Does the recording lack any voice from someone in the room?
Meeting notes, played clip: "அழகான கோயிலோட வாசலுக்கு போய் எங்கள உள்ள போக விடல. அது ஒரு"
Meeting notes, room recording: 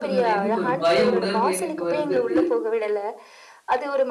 No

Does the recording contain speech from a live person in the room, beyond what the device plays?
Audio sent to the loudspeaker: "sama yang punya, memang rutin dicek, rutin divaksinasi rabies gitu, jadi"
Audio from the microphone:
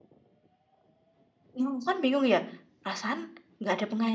Yes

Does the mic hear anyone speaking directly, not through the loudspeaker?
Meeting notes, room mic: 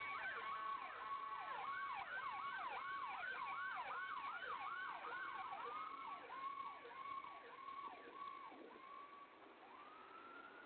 No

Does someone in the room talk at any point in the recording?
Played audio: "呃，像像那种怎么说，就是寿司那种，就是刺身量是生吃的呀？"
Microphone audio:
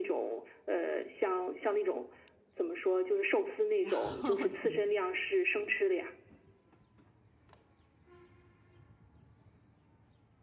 Yes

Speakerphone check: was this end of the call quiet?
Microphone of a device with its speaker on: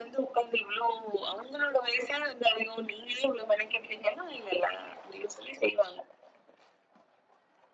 Yes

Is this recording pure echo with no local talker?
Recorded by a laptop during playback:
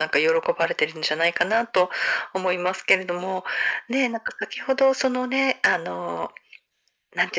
Yes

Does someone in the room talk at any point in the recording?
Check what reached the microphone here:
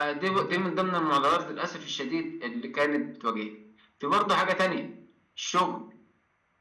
Yes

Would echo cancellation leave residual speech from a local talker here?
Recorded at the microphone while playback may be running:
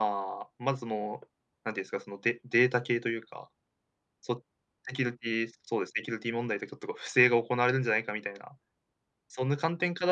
Yes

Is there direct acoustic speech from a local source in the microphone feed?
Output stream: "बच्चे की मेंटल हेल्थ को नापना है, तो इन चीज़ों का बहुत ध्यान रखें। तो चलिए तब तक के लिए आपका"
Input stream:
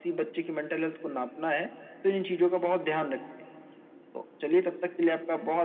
No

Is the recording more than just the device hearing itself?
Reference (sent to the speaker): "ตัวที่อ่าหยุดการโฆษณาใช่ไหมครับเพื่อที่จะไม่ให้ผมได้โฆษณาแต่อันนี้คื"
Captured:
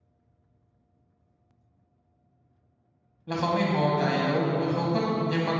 Yes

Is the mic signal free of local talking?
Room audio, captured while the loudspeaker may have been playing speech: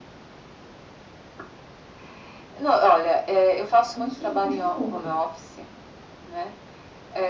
No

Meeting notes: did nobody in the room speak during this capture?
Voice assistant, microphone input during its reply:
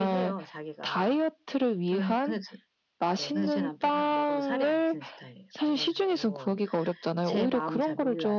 Yes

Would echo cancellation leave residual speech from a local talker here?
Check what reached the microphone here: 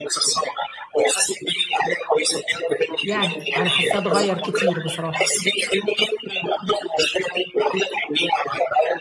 Yes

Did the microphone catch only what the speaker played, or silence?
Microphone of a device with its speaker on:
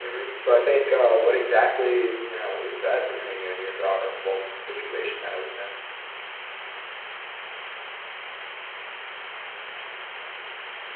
No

